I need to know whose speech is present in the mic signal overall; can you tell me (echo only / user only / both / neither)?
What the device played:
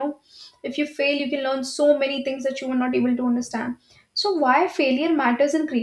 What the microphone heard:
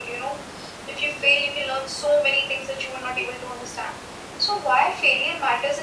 echo only